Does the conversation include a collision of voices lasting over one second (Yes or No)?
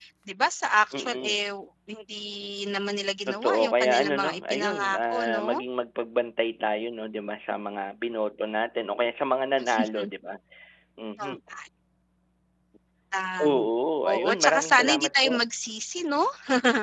Yes